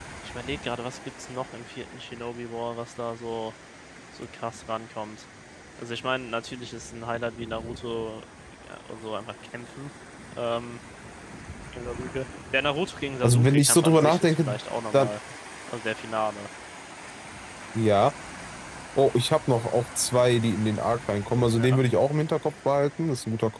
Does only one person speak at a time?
No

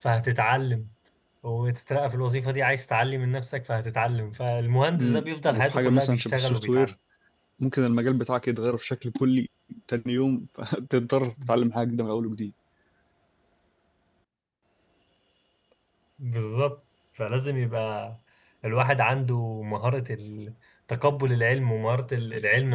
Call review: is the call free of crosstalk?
No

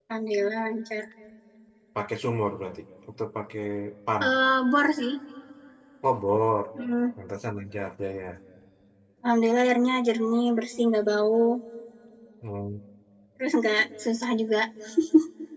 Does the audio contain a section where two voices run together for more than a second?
No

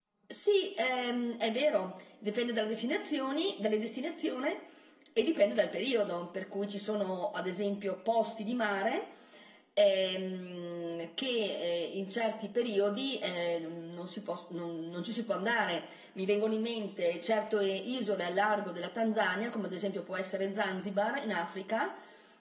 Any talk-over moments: No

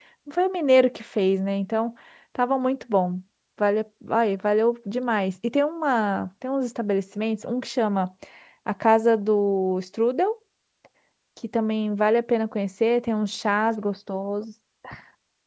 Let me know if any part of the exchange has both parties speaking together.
No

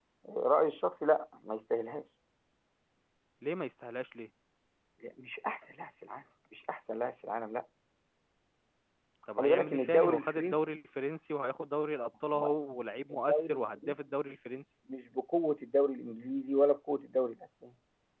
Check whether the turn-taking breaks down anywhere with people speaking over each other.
Yes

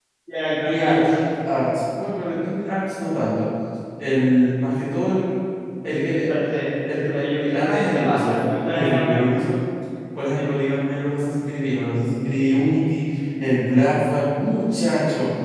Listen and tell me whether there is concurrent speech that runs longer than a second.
Yes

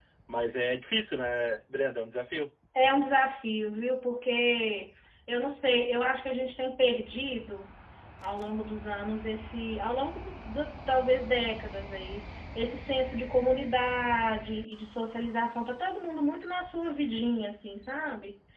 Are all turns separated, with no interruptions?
Yes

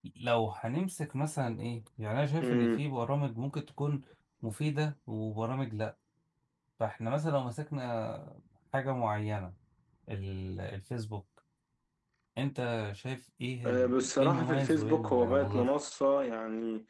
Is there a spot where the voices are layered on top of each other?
Yes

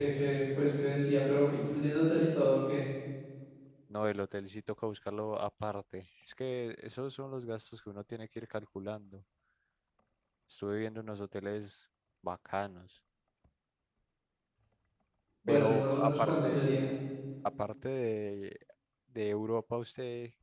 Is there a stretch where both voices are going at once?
Yes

